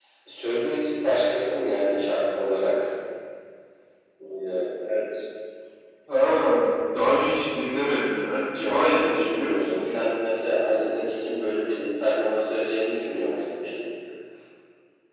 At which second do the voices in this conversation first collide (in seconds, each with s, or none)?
8.6 s